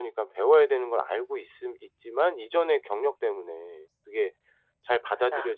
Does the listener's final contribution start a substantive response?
No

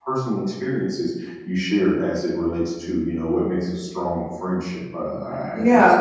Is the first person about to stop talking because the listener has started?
No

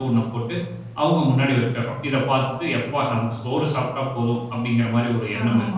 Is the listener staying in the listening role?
No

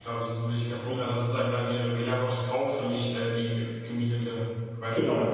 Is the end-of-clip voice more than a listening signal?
Yes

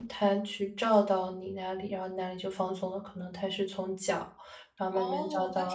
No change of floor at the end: No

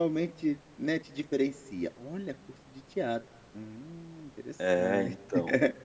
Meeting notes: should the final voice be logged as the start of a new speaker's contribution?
Yes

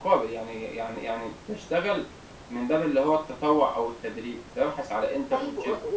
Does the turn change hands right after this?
Yes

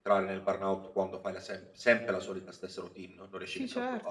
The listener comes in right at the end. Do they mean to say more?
Yes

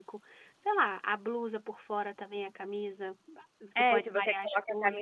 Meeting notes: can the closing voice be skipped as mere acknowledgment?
No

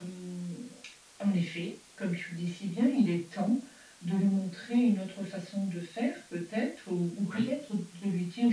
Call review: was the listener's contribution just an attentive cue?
Yes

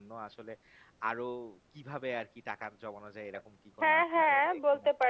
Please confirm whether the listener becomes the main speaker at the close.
Yes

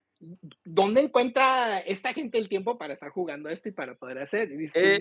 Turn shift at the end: Yes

